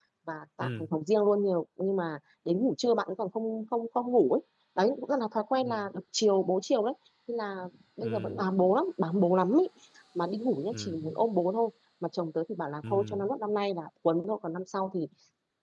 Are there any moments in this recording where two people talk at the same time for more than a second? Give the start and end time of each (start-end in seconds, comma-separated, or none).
none